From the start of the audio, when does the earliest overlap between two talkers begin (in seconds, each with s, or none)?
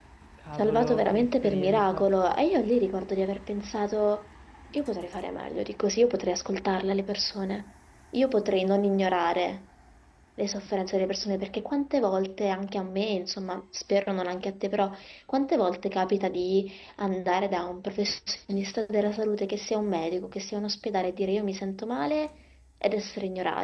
0.5 s